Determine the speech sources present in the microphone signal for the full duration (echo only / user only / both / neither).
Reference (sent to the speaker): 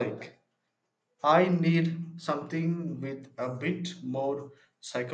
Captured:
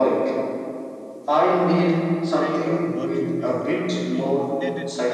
both